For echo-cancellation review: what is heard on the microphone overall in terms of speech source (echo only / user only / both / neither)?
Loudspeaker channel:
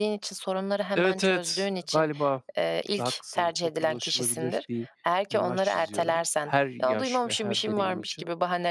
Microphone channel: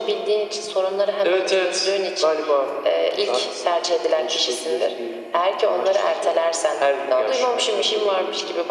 echo only